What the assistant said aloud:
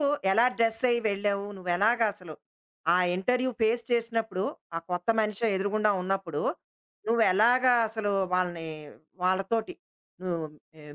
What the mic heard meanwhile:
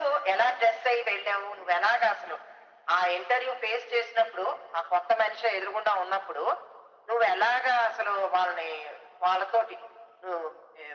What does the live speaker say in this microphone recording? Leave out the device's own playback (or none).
none